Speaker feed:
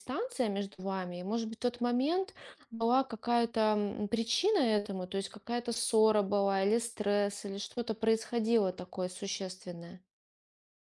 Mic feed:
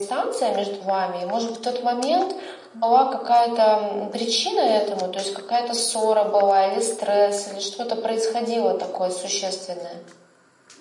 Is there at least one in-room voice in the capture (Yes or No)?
No